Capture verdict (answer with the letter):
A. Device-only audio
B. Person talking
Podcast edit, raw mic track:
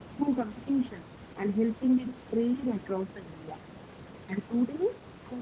A